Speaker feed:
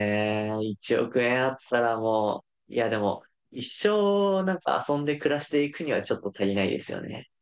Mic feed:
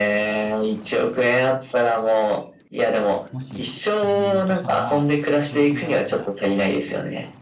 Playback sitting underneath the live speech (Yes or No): No